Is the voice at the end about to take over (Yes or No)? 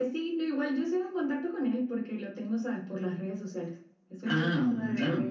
No